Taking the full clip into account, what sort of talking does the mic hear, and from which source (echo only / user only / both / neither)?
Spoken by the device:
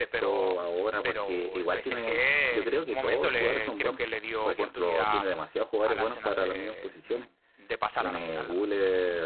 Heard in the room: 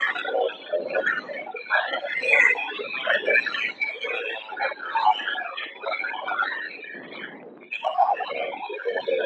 echo only